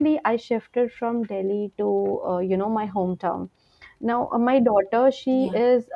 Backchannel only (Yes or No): Yes